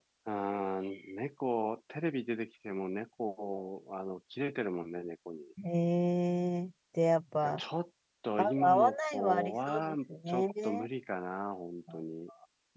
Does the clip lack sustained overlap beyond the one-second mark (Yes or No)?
No